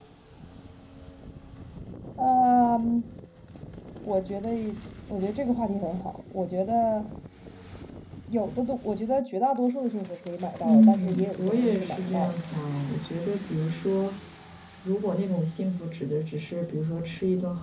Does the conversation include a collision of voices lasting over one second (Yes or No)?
Yes